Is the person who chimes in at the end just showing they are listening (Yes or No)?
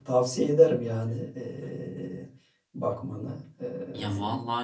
No